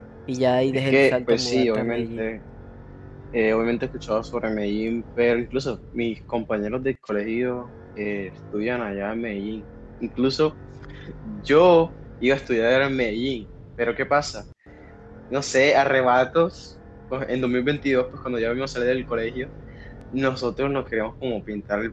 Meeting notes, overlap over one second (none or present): present